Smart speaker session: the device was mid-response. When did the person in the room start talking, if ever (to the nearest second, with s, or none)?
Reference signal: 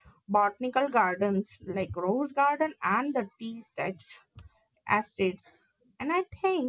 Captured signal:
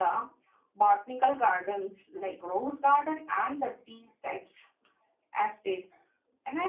none